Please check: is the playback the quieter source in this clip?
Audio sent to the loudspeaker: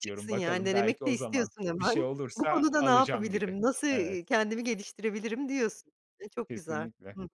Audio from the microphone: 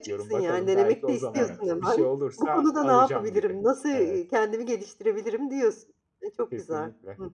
No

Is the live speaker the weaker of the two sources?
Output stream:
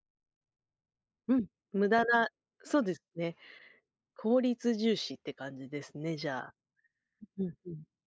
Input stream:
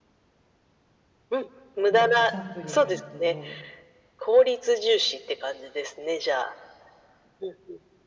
Yes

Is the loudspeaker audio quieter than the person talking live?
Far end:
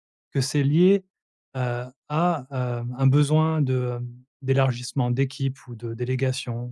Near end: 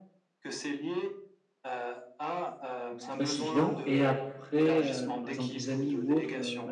Yes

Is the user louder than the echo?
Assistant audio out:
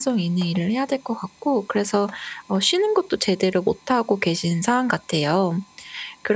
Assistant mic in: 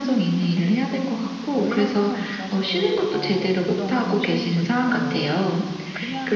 No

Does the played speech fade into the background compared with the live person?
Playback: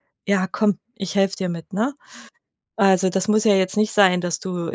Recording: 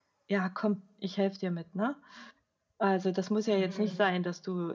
No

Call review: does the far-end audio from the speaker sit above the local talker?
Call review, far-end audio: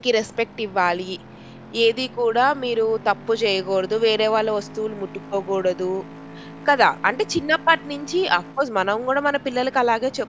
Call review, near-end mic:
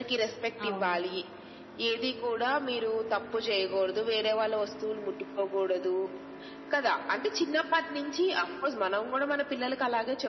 Yes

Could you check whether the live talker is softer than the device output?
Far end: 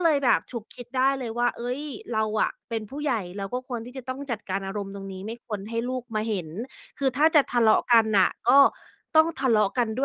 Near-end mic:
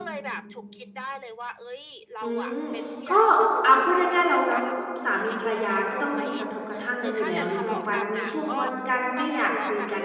No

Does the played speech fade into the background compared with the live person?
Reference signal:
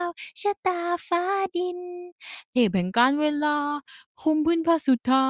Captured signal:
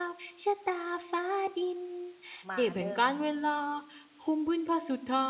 No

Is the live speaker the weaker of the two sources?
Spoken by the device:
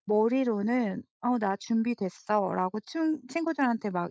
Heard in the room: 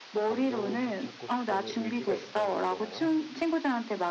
Yes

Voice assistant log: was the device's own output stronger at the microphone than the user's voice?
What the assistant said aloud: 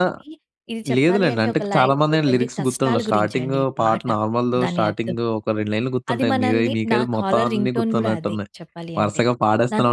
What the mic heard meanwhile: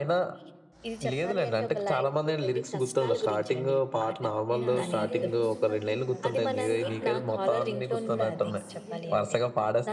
Yes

